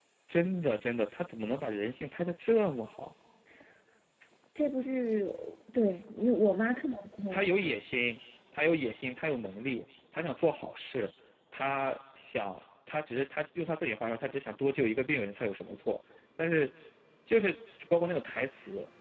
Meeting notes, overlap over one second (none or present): none